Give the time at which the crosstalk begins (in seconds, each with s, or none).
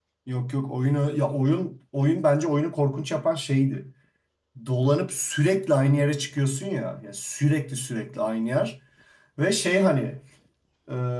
none